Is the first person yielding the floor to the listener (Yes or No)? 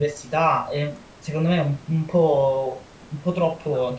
Yes